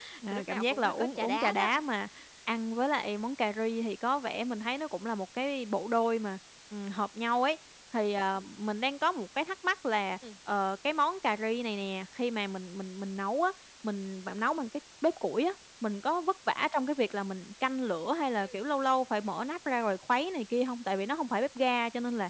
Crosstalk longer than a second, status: present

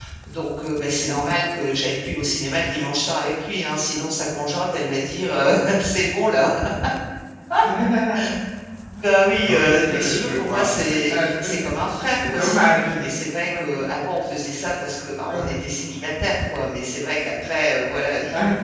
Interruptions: present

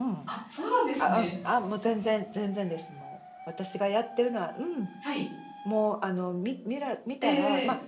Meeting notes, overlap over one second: none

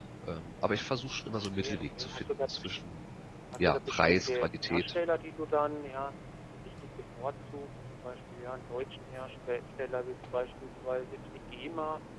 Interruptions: present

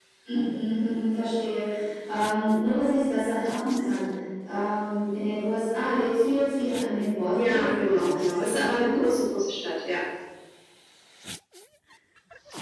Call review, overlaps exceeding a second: present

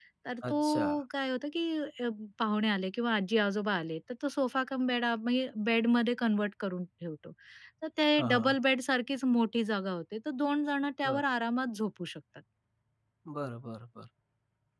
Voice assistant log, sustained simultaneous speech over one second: none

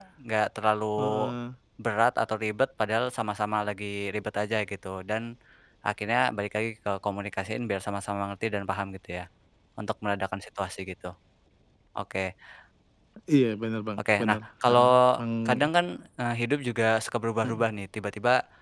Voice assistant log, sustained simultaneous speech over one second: present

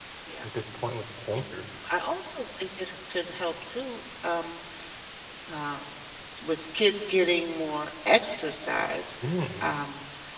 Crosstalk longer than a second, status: none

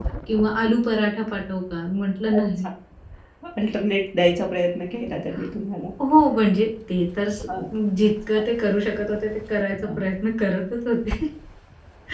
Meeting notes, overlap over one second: none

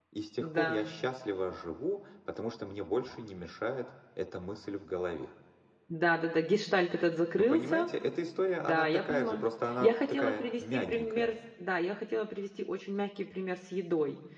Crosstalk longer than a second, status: present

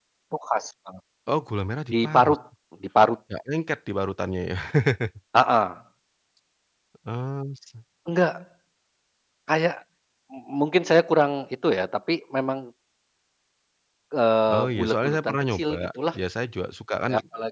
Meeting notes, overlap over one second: present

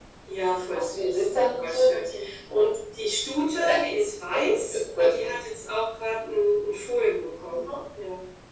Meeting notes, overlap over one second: present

